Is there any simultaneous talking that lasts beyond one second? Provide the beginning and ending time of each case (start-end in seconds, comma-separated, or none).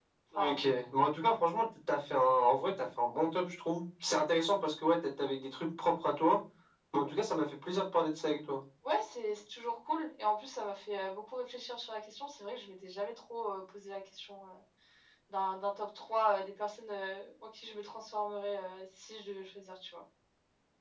none